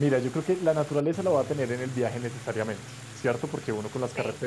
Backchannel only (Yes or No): Yes